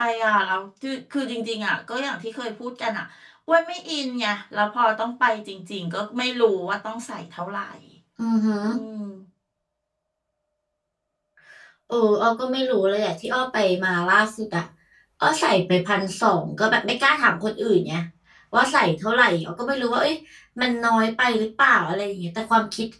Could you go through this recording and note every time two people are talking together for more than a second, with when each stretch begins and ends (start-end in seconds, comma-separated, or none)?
none